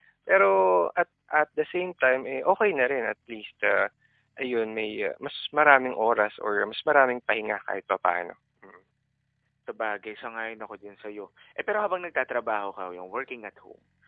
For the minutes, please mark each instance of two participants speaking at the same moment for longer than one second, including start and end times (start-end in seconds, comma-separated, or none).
none